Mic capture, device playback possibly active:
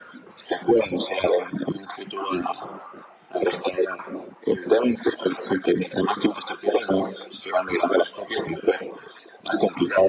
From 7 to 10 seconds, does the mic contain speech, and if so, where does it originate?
echo only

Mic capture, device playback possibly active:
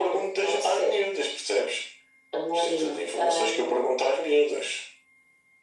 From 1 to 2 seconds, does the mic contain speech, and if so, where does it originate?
echo only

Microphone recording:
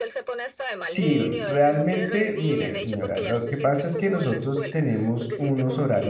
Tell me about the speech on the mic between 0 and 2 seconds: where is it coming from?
both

